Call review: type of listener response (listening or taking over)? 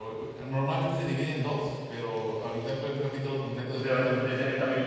taking over